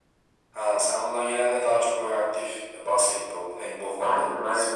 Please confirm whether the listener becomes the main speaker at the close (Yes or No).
Yes